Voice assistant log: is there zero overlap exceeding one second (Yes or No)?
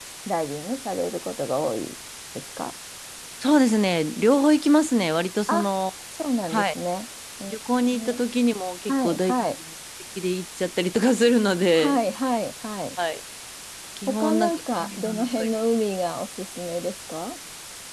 No